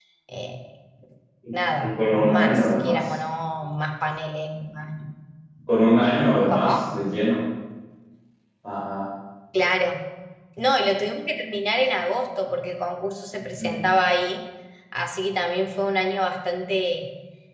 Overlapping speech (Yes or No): Yes